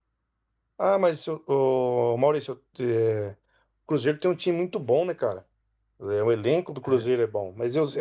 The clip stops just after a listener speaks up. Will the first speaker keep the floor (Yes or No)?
Yes